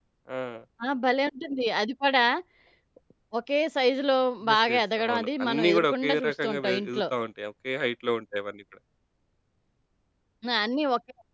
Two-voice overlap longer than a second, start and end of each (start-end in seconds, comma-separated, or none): 4.5-7.0